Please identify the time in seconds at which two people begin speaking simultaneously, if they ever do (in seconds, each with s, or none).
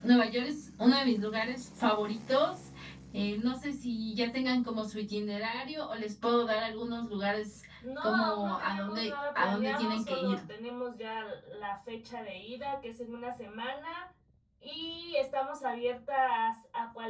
8.0 s